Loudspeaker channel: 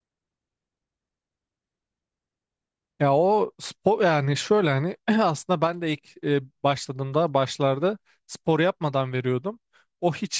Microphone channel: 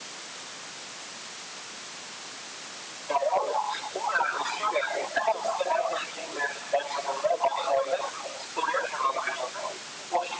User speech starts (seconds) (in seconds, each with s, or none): none